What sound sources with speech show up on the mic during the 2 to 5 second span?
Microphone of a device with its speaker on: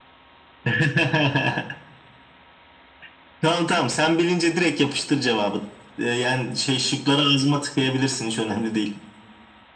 echo only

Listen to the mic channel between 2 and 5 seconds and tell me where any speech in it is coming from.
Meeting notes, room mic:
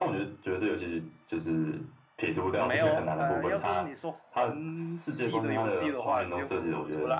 both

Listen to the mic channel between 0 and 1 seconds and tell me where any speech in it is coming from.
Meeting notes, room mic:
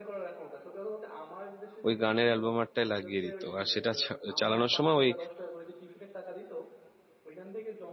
echo only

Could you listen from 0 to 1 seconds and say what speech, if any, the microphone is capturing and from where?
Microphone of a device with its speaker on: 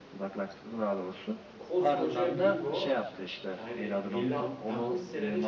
echo only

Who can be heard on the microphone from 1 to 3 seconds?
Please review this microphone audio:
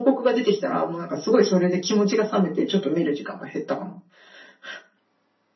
echo only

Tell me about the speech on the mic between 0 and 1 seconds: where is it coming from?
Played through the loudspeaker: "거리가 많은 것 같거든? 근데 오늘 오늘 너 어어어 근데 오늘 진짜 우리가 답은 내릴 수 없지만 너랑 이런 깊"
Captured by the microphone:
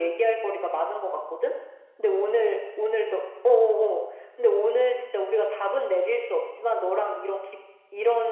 echo only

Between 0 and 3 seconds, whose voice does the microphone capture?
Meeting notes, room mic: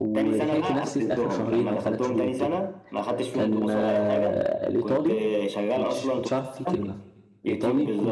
both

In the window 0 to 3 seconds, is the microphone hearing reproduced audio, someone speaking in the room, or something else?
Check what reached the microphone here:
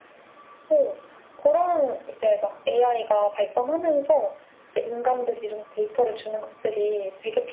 echo only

